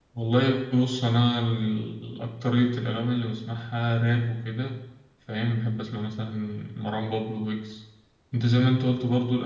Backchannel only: Yes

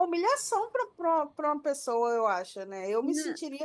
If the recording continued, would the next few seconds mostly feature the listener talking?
No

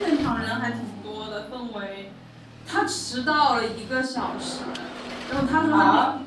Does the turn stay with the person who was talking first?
No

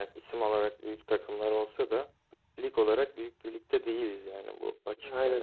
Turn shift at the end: Yes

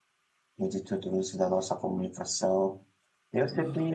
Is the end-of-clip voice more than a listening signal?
No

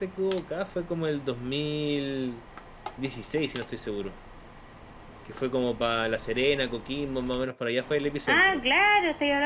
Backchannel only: No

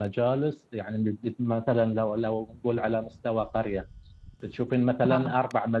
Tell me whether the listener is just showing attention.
Yes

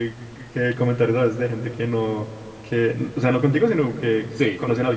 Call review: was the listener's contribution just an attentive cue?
Yes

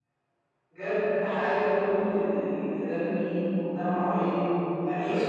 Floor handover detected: No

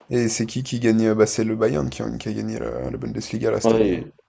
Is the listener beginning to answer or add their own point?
Yes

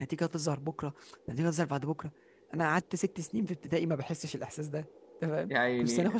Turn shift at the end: No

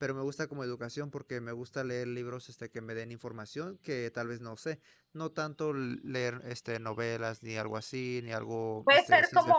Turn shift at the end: Yes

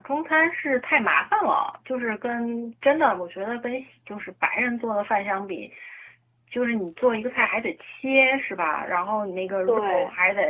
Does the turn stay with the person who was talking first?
Yes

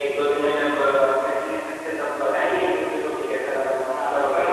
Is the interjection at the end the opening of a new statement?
Yes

